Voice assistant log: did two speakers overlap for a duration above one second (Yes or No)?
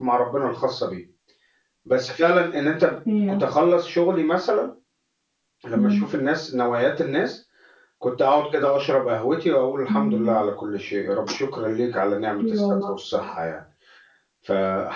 No